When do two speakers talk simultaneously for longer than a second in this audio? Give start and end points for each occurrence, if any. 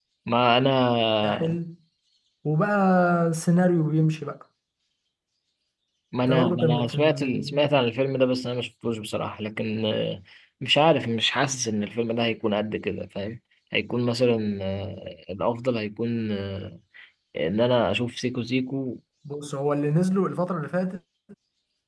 6.3-7.6

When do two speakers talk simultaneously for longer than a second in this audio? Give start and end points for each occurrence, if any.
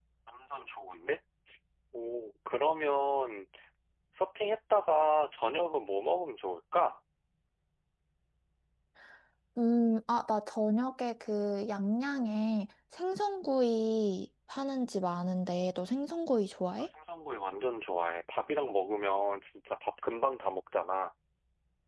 none

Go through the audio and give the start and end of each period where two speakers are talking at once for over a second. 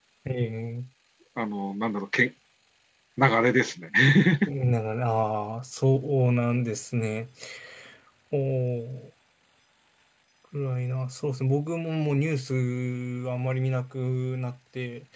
none

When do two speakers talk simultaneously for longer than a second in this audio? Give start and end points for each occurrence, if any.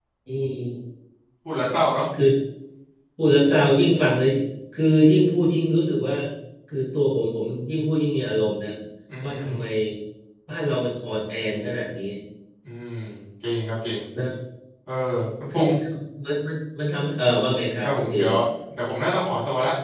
none

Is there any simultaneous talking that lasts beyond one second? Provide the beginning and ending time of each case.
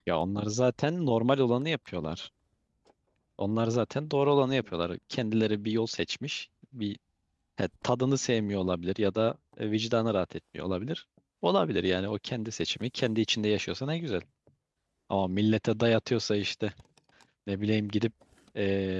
none

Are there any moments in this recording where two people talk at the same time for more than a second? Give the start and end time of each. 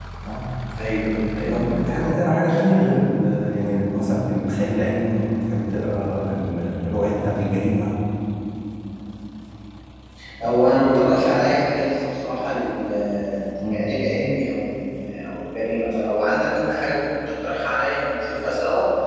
none

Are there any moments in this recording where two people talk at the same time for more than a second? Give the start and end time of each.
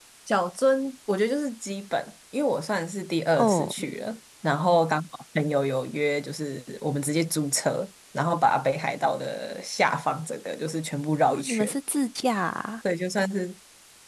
none

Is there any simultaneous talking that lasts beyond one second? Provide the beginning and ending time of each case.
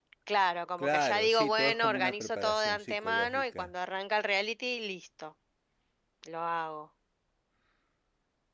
0.8-3.7

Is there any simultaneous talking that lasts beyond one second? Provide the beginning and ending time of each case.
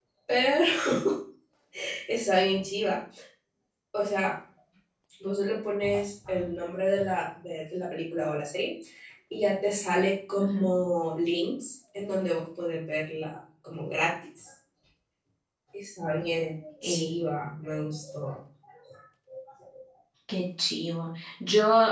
none

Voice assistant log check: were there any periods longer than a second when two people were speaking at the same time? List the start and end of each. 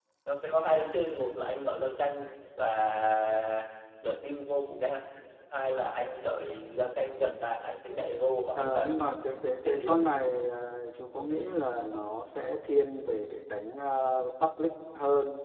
8.6-10.0

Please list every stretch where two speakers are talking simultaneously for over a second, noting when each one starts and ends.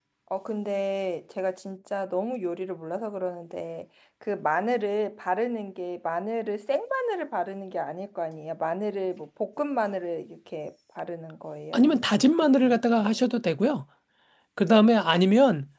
11.7-13.2

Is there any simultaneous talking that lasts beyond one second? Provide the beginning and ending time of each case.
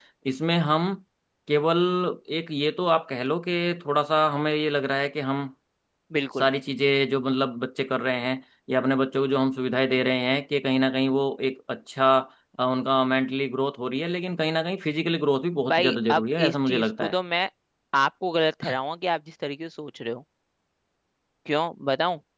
15.7-17.1

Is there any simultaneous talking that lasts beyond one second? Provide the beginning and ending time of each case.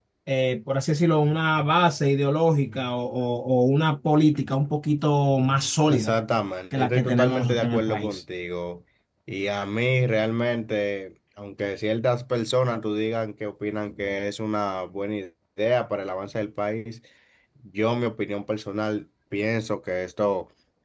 6.7-8.2

